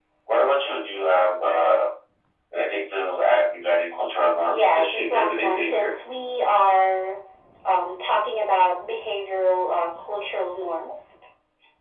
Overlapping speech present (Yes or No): Yes